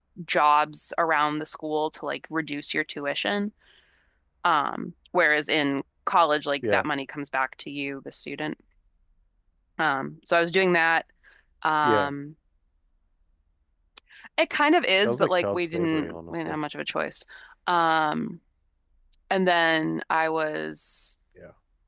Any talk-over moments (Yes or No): Yes